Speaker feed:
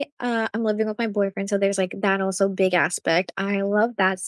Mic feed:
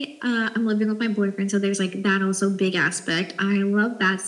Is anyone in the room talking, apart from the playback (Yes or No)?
No